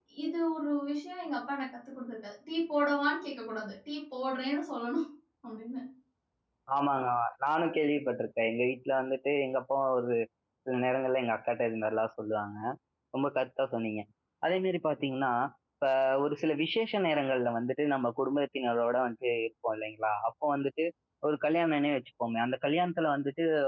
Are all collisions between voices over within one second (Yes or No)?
Yes